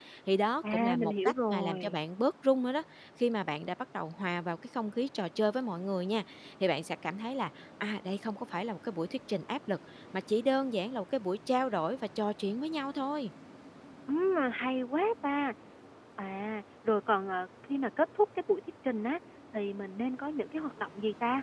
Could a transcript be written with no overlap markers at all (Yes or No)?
No